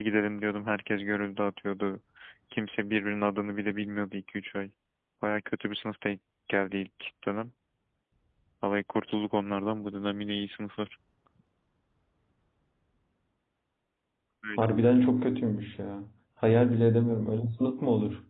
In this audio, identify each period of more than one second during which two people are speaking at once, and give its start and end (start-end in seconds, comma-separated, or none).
none